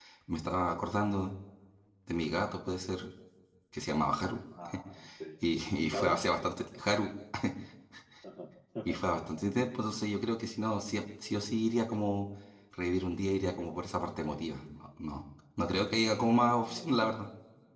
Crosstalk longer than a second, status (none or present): none